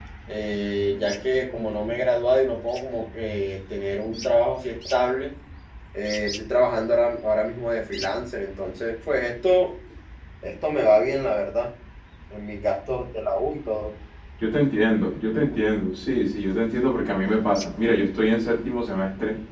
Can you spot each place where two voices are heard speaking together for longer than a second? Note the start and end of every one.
none

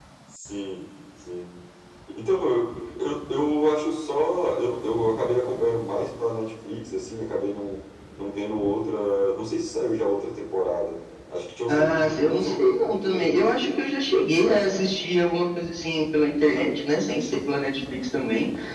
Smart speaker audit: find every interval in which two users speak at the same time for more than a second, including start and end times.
11.7-13.5

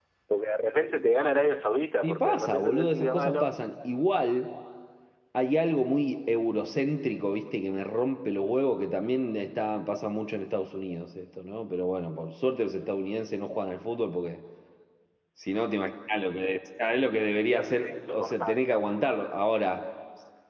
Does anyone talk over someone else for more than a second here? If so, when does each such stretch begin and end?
2.0-3.5, 17.4-18.7

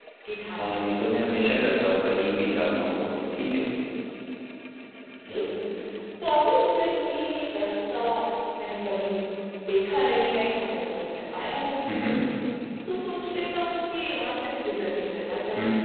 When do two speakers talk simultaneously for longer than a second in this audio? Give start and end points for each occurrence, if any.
none

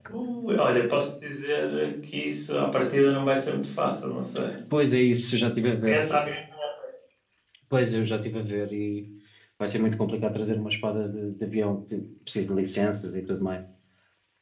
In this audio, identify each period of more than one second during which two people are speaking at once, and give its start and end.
none

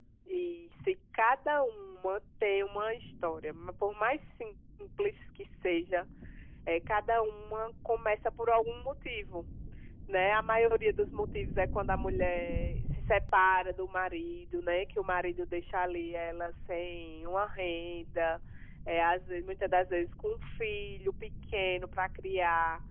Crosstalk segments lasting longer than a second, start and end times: none

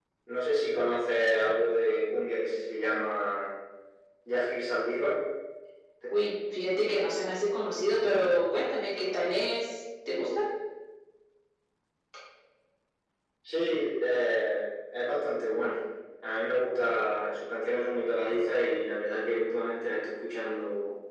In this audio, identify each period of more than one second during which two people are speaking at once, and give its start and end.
none

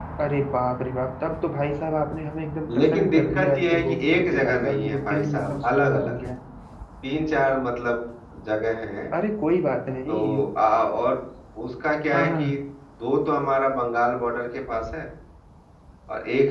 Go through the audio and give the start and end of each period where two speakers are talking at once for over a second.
2.7-6.3

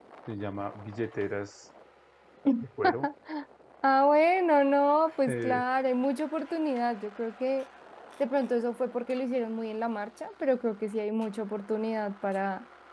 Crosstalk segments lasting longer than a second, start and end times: none

